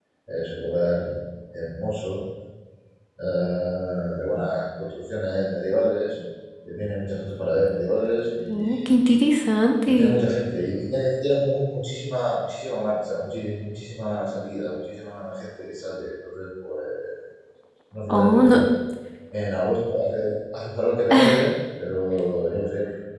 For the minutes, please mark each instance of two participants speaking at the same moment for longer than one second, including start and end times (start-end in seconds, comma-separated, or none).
none